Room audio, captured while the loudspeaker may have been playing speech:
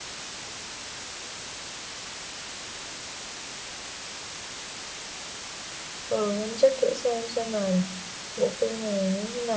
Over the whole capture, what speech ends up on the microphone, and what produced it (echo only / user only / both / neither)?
user only